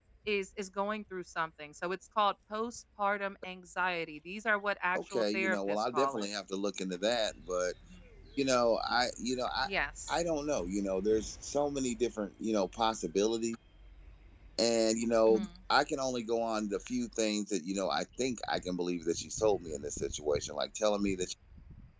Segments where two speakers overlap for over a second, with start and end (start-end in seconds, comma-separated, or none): 4.9-6.3